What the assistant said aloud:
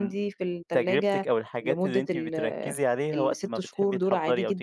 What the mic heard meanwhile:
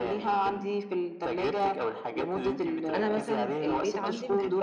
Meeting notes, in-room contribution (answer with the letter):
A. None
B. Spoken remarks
B